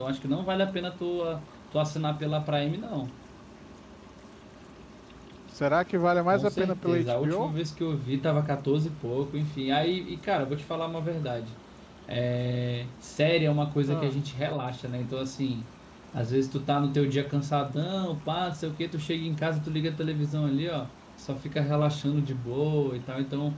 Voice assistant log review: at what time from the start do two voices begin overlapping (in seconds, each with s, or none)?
6.3 s